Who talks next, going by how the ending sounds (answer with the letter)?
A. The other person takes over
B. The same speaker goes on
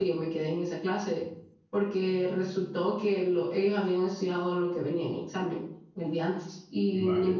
B